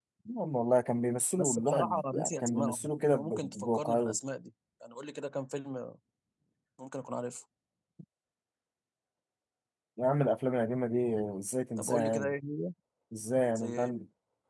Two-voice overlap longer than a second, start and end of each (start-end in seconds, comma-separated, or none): 1.4-4.1